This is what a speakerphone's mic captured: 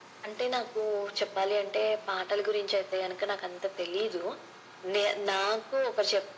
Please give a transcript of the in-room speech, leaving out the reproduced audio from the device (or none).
none